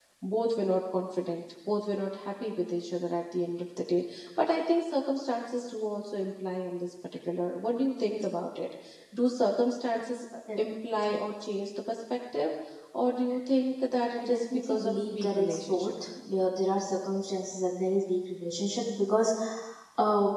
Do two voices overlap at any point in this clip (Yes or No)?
Yes